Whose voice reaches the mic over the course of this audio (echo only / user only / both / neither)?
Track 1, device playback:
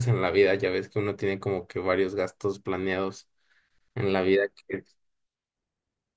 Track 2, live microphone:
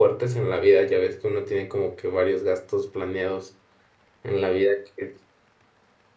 echo only